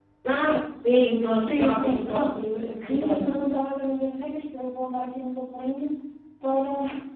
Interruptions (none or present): present